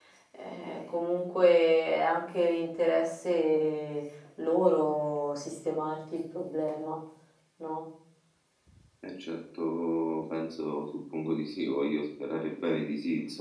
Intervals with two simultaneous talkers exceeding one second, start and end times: none

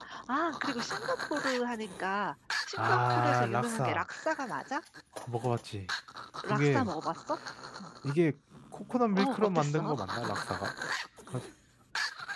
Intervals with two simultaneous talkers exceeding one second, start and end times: 2.8-4.0, 9.1-10.4

